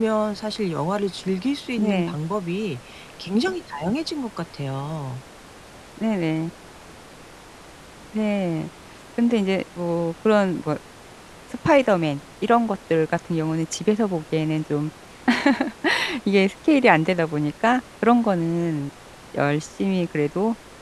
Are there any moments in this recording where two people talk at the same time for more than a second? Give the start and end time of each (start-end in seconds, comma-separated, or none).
none